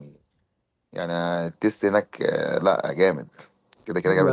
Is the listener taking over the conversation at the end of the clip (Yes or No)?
Yes